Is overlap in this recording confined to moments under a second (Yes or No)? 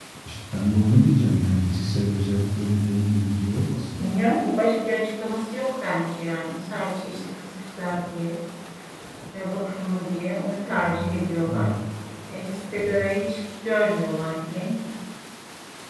Yes